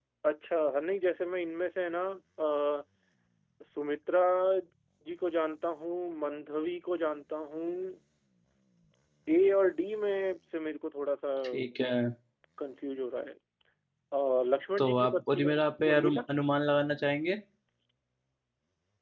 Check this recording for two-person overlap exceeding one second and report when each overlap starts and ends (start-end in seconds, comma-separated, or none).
14.8-16.2